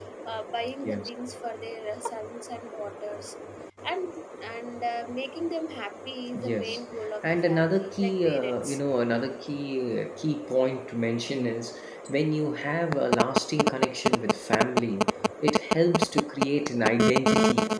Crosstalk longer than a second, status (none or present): present